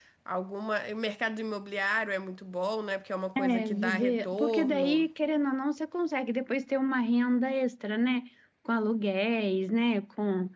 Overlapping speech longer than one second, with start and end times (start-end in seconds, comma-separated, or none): 3.4-5.1